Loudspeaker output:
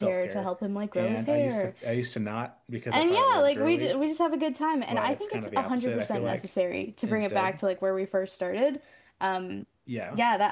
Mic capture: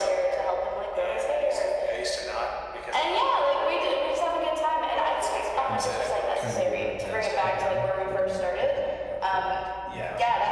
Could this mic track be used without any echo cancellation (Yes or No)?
No